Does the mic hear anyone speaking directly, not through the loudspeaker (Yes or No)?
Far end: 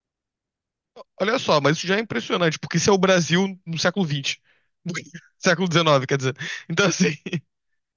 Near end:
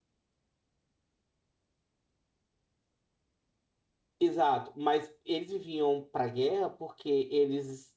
Yes